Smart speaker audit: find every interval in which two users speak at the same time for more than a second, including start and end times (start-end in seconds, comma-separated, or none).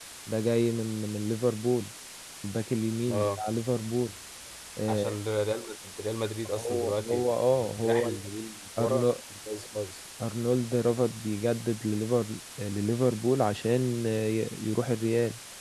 6.6-8.2